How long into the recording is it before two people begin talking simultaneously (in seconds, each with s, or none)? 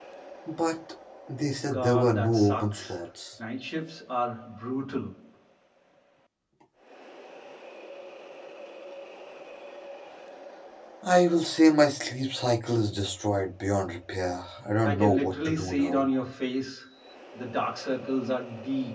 1.7 s